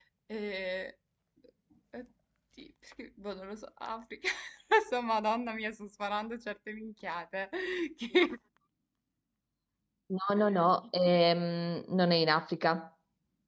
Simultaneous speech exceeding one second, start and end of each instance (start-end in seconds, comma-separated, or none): none